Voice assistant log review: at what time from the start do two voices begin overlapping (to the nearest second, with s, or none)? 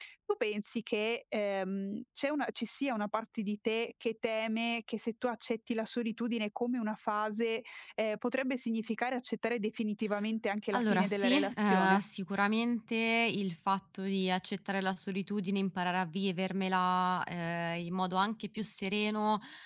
11 s